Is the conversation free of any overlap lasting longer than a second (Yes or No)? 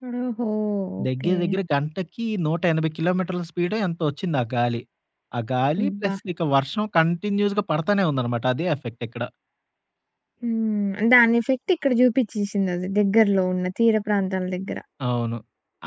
Yes